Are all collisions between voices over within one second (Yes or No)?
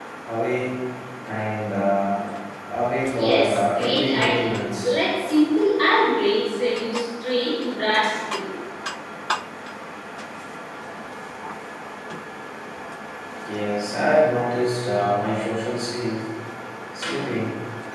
No